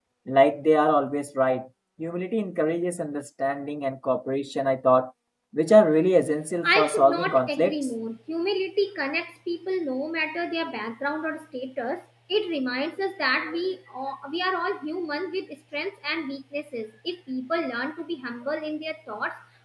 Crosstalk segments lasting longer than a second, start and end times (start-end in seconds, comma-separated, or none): 6.6-7.9